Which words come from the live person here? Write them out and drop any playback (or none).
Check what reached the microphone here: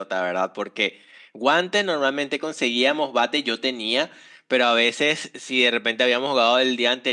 none